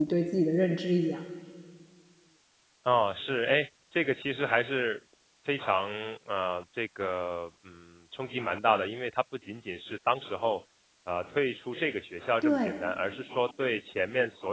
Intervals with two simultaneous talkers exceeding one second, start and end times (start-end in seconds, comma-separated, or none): none